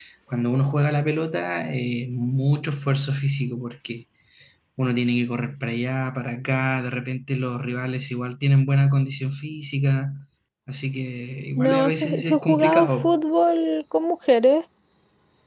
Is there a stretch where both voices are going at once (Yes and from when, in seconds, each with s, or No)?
Yes, from 11.6 s